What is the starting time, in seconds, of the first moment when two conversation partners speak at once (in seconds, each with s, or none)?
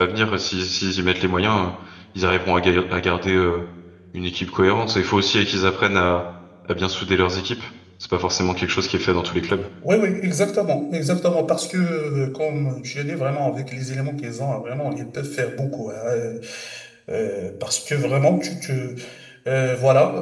none